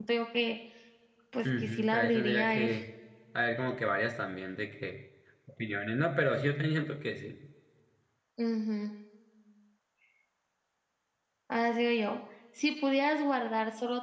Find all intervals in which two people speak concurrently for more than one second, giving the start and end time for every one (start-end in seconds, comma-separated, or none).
1.4-2.7